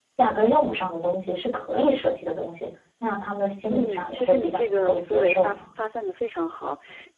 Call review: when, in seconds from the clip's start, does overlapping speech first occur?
3.6 s

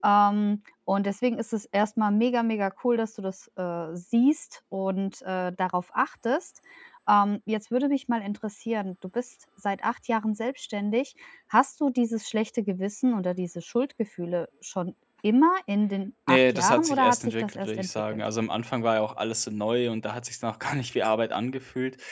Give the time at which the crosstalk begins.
16.3 s

